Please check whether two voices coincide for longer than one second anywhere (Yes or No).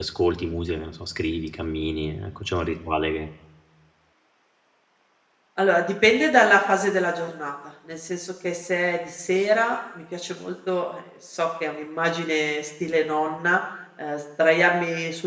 No